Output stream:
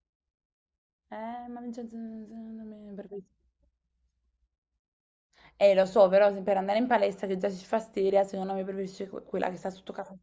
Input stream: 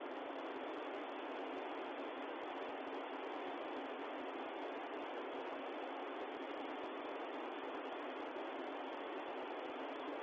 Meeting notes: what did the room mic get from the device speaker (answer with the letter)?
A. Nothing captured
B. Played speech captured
A